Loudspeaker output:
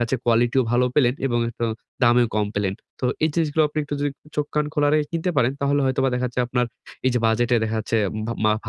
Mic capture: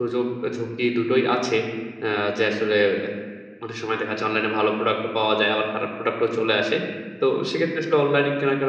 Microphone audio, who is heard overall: user only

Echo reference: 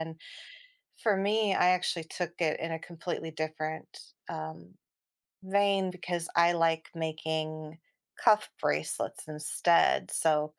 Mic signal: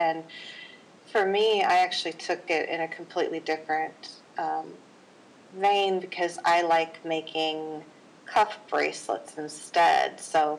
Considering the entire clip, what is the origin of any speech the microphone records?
echo only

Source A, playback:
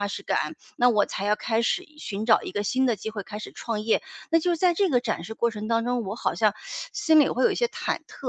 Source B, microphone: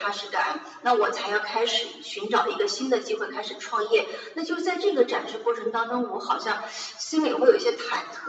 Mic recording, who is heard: echo only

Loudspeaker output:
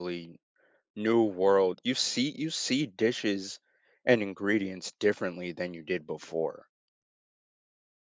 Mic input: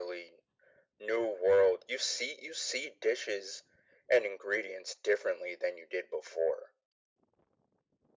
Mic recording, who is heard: echo only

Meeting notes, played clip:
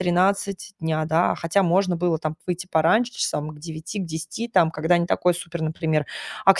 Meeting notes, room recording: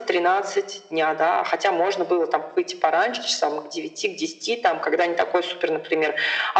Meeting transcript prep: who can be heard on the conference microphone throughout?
echo only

